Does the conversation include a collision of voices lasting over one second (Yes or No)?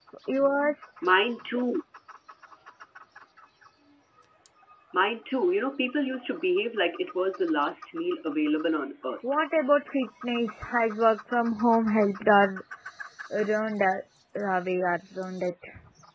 No